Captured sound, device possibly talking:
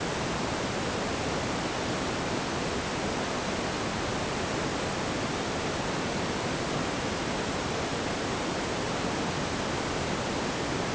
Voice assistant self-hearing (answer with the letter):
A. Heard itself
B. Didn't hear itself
B